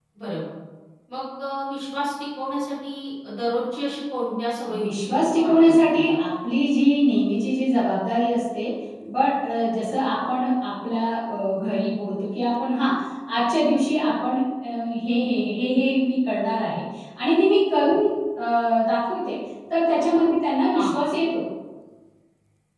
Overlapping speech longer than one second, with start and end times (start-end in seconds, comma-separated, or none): 4.8-6.2